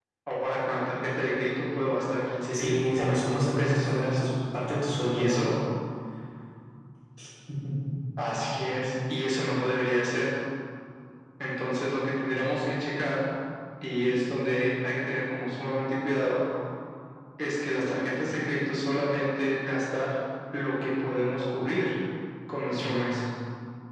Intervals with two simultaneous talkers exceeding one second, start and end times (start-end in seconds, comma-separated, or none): 2.5-4.2